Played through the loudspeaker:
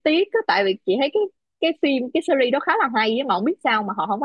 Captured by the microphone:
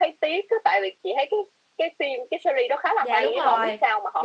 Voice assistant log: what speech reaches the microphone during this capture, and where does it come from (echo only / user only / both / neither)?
both